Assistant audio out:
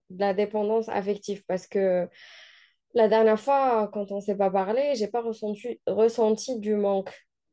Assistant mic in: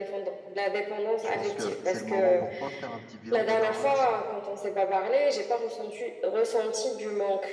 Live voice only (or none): Je pense que c'est le moment pour toi de faire un petit bilan de ta relation.